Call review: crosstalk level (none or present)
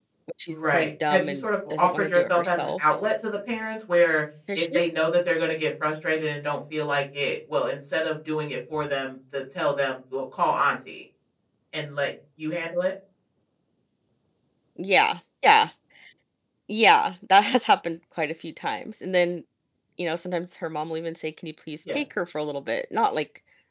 present